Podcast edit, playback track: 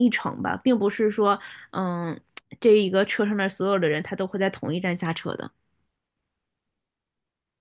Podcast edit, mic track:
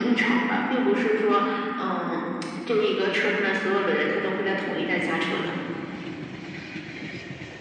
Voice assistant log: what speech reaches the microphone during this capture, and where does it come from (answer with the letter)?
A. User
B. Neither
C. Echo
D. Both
C